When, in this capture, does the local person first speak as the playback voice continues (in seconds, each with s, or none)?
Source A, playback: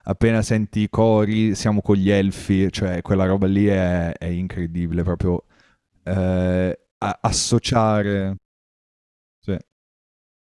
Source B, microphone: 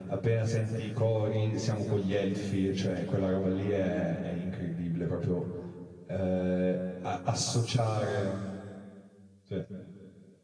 none